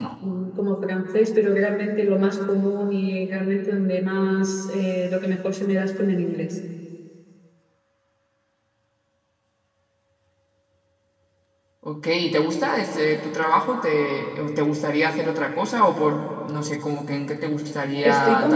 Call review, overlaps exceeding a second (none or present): none